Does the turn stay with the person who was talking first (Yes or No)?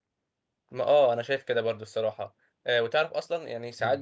Yes